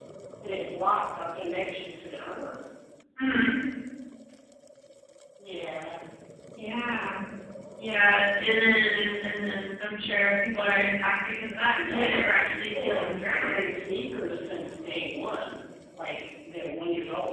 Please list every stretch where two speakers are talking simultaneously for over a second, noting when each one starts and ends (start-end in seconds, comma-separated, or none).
11.7-13.6